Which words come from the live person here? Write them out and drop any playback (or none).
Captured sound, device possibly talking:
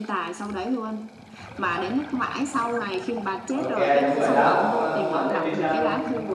ok đúng rồi đó ông là Thomas Edison